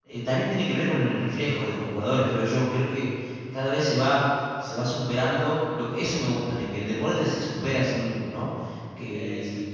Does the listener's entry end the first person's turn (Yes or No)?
No